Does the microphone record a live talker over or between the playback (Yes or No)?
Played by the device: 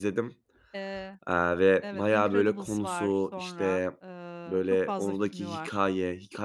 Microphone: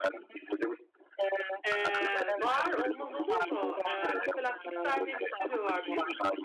Yes